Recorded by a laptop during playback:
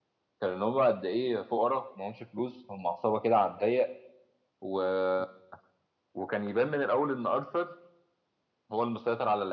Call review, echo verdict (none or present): none